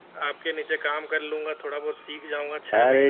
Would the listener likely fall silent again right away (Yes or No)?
No